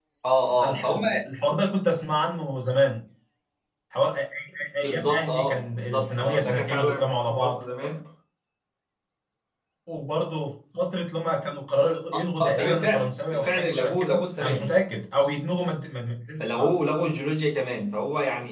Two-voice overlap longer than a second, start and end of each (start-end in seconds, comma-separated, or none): 4.8-7.6, 12.4-14.7